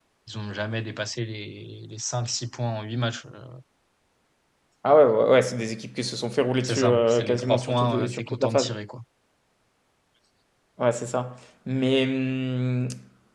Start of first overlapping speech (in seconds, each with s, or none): 6.6 s